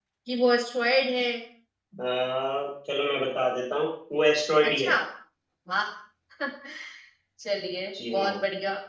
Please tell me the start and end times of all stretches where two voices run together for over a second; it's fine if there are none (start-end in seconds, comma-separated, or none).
none